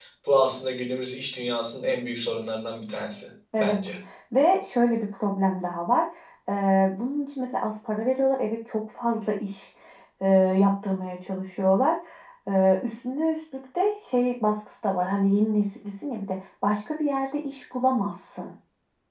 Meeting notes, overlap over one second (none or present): none